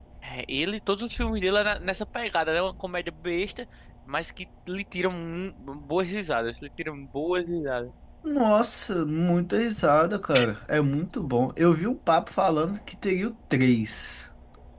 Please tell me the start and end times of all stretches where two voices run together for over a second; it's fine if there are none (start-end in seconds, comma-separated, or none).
none